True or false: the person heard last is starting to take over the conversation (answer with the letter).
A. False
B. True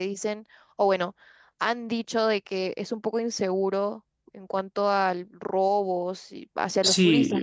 B